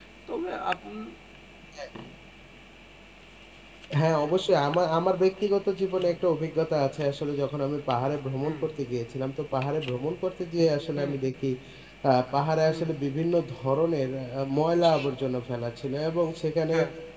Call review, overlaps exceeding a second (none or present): none